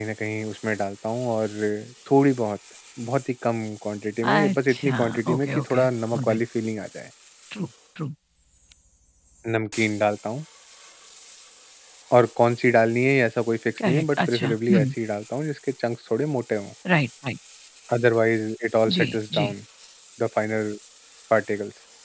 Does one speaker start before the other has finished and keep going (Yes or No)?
Yes